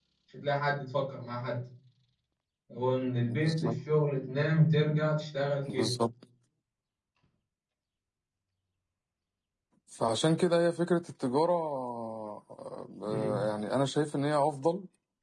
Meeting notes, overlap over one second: none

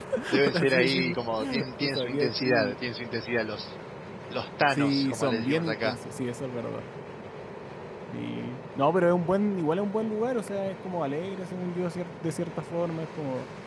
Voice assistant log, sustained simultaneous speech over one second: present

